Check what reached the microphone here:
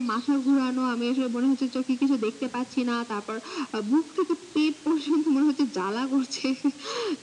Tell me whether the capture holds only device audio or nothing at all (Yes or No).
Yes